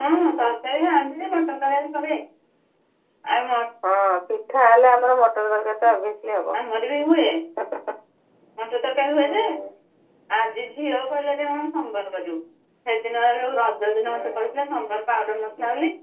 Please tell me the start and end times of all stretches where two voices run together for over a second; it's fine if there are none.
none

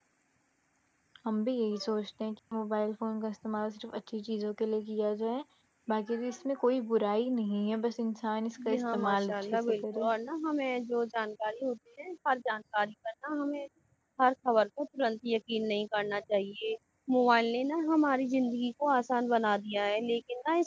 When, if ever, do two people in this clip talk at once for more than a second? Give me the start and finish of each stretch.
8.7-10.0

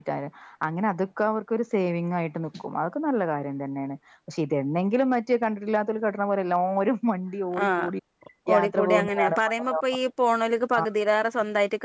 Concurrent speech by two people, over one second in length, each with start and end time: 8.5-9.8

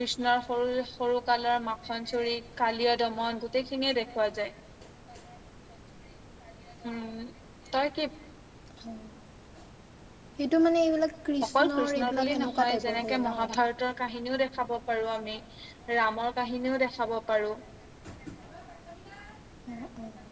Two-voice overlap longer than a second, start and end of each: 11.6-13.4

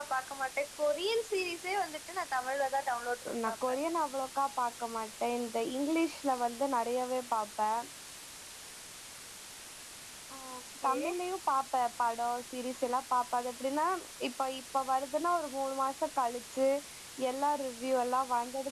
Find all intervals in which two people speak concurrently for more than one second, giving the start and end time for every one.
none

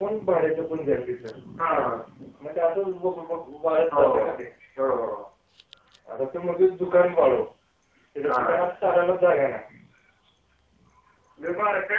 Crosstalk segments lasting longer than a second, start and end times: none

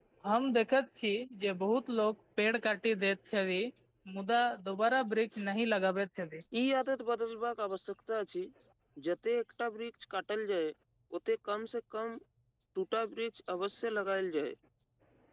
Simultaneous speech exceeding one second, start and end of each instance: none

